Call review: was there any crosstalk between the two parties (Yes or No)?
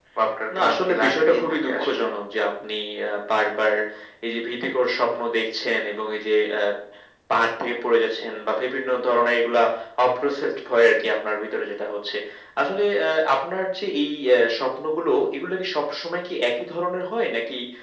Yes